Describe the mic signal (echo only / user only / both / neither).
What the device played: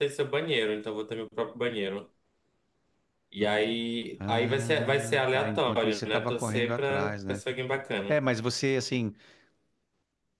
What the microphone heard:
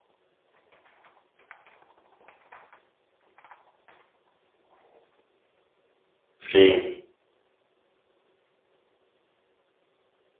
user only